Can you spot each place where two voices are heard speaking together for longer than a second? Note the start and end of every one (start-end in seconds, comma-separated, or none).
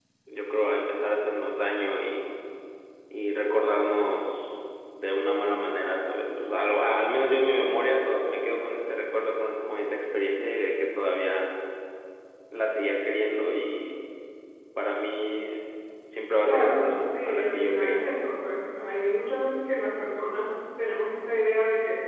16.4-18.1